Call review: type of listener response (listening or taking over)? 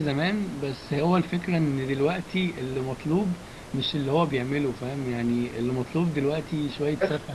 listening